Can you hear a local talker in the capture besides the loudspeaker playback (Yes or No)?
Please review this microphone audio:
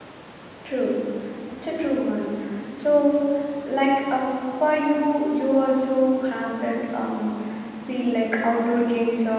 Yes